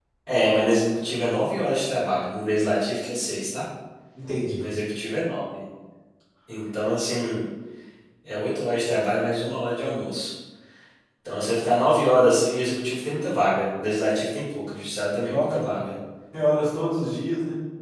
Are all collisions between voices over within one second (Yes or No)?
Yes